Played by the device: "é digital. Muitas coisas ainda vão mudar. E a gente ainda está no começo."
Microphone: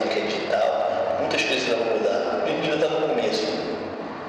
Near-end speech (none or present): none